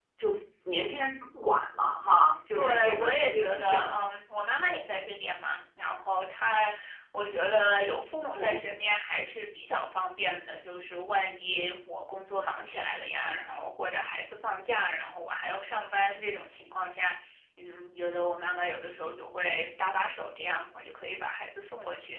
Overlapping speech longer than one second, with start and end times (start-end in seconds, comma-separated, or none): 2.5-3.9